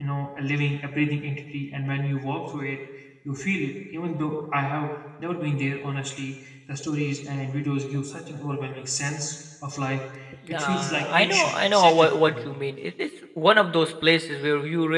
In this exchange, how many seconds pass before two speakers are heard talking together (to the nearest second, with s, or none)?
11 s